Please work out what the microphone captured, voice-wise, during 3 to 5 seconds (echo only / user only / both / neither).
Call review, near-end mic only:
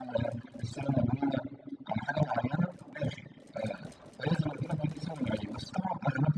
echo only